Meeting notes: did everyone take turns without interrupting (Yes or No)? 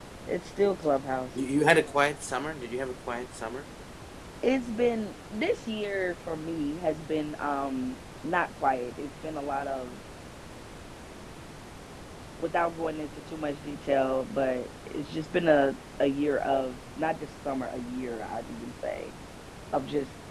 Yes